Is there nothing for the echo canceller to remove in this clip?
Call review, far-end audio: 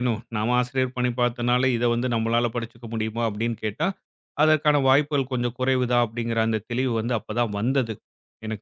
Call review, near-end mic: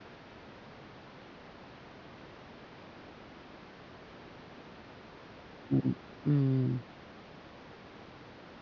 Yes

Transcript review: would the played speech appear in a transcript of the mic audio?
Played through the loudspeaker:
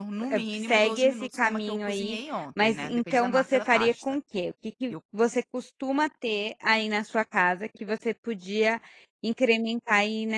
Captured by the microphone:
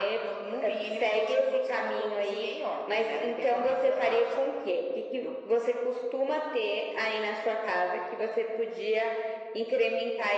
Yes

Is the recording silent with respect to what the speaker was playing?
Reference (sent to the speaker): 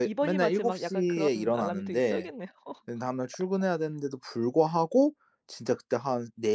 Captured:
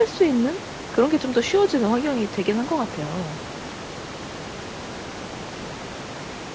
Yes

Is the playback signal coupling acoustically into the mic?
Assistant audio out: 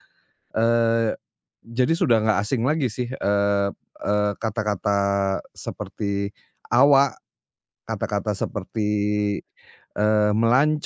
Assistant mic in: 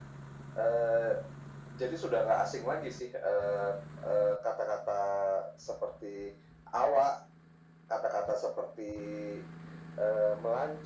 Yes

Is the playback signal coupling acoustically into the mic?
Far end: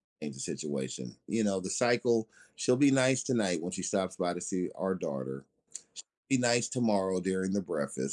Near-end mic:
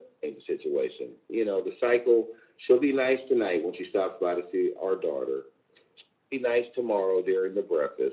Yes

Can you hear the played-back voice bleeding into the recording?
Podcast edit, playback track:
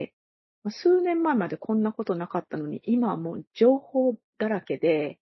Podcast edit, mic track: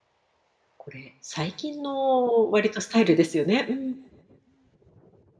No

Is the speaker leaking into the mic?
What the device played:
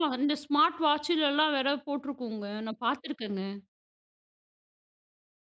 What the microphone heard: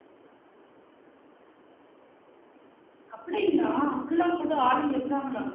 No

